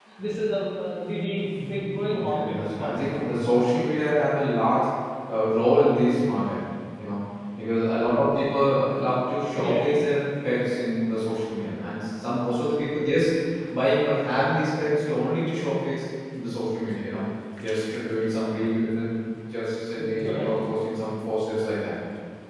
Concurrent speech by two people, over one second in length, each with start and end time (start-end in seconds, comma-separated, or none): 2.1-3.4